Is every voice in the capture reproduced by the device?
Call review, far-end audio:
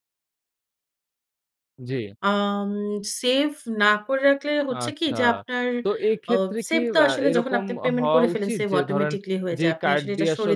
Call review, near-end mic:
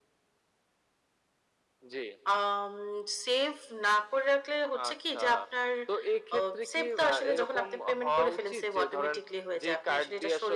Yes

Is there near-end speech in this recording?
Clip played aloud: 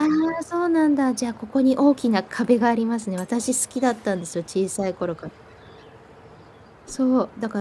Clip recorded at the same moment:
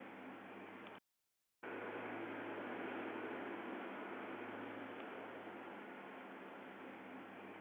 No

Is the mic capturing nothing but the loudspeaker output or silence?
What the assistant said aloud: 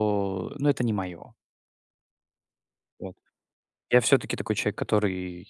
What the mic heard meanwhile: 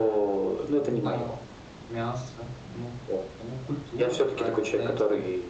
No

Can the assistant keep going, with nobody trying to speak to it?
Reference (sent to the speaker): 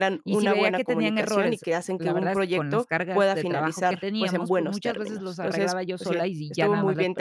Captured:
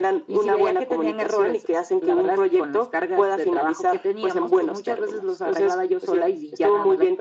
Yes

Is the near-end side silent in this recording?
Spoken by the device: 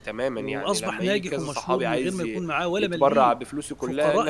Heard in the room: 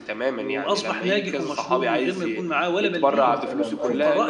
No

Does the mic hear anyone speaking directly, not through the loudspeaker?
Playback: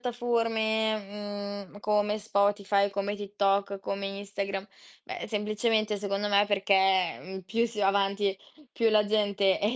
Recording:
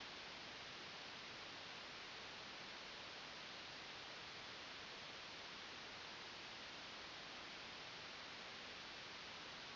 No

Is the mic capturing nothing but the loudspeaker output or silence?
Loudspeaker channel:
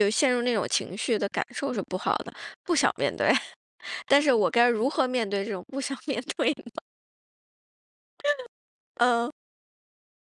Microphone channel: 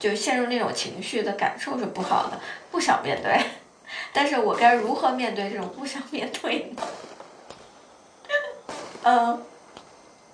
Yes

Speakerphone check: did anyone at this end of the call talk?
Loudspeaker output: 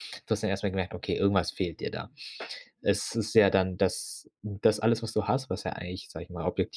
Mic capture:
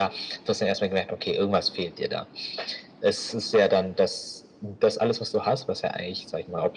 No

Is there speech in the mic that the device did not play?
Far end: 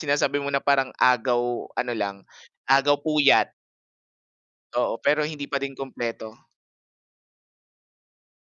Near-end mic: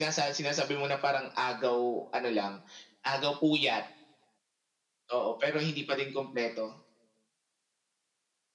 No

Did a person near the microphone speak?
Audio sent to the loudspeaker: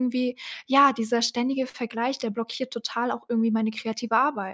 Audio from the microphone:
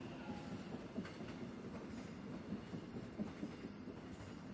No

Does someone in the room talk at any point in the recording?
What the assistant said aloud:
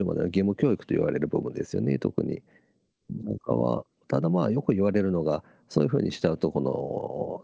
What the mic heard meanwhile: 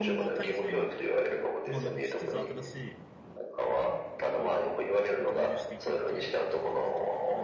Yes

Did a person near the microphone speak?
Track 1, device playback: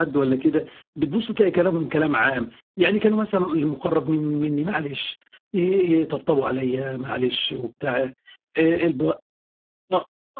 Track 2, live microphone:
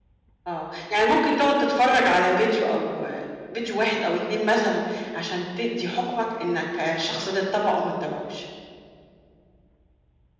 Yes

